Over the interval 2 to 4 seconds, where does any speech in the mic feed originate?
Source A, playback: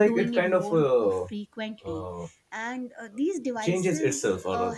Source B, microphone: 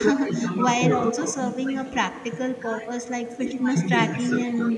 both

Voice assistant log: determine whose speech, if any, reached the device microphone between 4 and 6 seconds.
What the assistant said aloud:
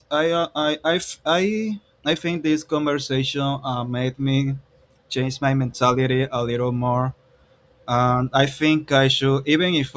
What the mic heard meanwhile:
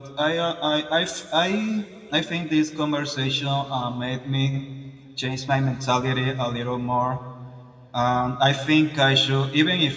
echo only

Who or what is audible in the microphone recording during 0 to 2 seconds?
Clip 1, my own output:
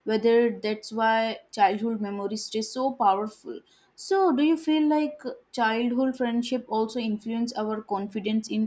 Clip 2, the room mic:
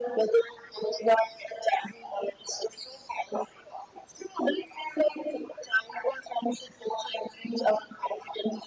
echo only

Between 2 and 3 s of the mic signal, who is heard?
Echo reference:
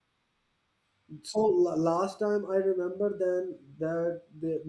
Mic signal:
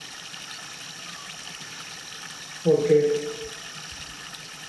user only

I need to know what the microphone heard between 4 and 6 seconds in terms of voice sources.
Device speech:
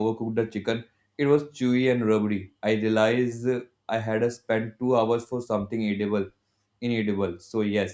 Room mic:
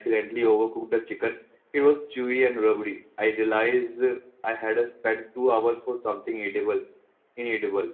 echo only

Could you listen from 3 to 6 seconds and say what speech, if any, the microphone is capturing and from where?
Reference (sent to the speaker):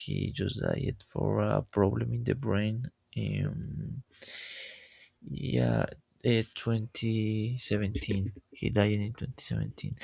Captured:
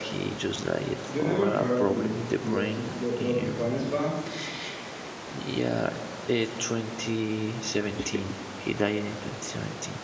both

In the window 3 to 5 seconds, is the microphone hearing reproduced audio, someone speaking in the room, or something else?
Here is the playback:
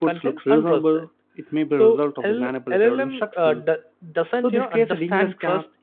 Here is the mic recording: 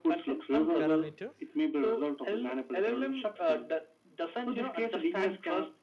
echo only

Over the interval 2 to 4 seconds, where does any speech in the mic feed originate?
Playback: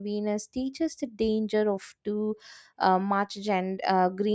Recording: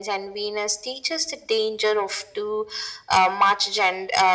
echo only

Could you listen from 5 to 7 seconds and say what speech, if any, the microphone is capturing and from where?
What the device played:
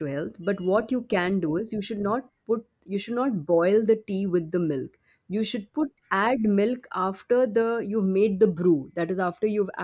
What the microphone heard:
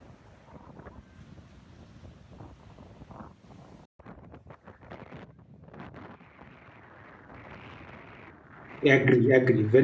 neither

